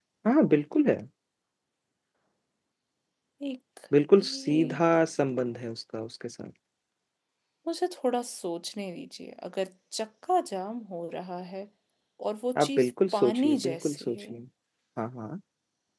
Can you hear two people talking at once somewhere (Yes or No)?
Yes